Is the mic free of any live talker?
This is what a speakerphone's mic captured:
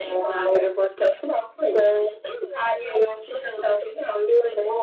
Yes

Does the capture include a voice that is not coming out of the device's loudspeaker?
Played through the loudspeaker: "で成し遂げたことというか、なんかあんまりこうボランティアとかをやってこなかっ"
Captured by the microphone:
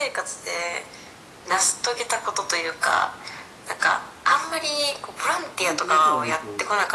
Yes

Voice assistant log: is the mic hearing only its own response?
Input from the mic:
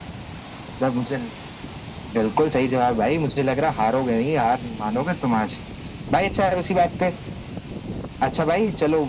Yes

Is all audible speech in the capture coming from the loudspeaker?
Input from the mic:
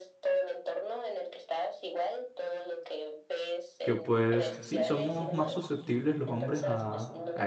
No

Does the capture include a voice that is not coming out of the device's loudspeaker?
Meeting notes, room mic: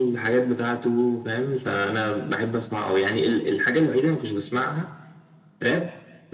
No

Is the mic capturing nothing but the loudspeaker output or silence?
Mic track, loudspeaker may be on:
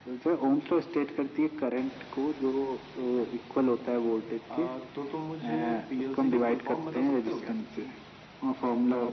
Yes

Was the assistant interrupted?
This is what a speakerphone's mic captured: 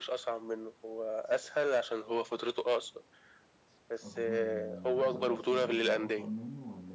Yes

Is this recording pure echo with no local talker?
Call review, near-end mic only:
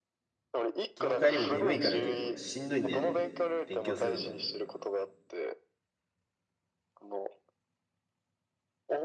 No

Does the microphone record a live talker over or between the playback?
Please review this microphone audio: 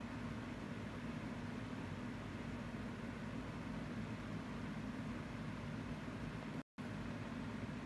No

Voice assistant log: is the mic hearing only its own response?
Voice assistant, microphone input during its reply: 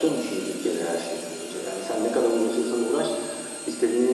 Yes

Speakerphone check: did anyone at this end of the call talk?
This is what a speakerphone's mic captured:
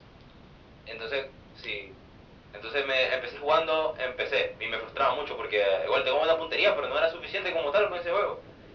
No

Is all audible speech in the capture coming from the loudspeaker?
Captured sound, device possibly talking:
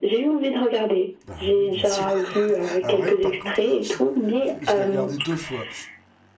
No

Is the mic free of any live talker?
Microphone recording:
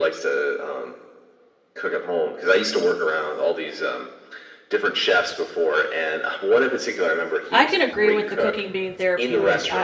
No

